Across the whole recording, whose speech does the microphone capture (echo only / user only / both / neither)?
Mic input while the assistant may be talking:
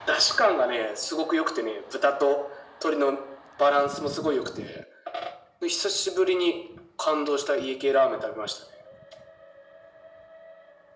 echo only